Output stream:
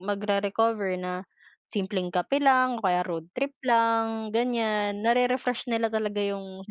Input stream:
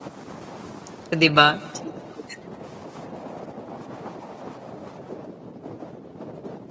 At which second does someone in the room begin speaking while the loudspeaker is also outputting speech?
0.9 s

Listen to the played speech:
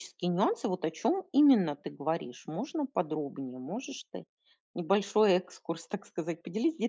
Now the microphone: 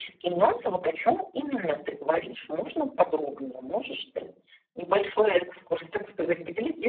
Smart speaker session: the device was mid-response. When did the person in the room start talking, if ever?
none

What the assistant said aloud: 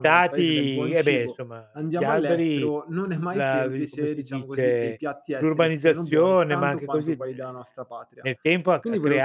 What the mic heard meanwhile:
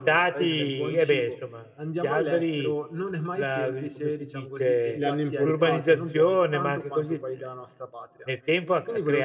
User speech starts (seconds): 4.9 s

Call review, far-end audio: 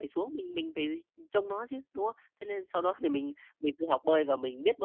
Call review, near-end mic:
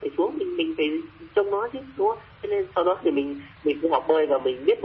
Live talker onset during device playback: none

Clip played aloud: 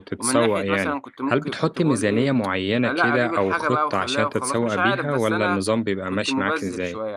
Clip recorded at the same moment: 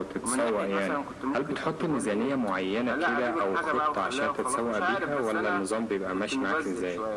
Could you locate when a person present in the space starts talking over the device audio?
none

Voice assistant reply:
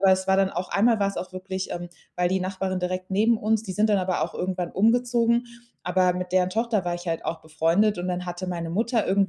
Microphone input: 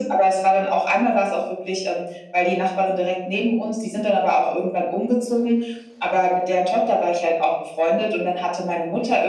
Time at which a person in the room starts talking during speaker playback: none

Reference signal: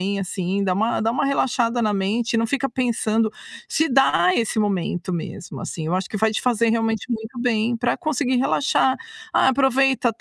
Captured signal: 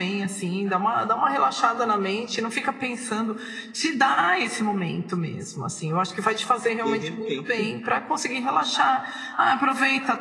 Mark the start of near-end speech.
6.8 s

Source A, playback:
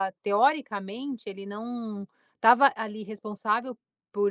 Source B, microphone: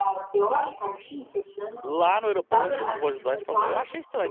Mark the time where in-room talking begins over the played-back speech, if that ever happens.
1.8 s

